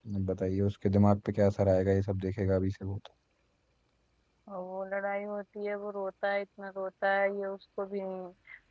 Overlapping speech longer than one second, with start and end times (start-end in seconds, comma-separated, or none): none